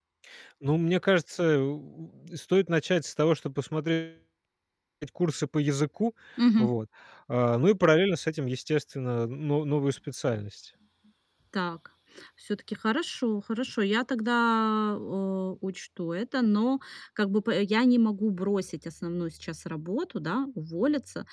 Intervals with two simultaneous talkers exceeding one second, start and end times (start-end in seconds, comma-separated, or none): none